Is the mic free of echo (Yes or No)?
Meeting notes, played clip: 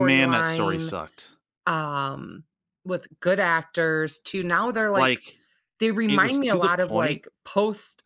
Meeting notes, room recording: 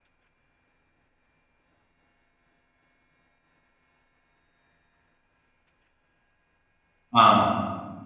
Yes